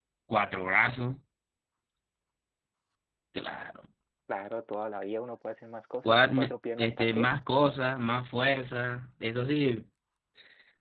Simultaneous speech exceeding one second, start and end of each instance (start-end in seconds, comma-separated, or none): 6.0-7.3